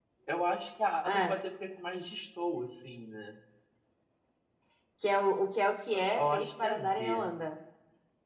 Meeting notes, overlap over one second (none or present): present